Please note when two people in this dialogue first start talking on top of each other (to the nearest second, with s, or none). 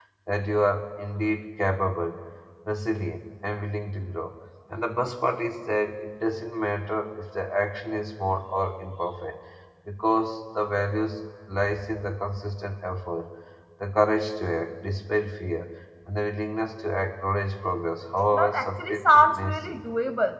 18 s